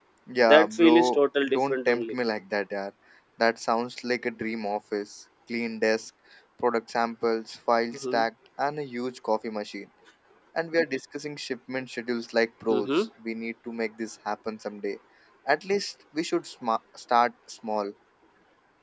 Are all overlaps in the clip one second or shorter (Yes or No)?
No